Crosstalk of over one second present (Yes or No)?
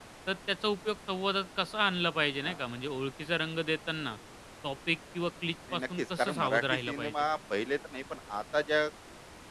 Yes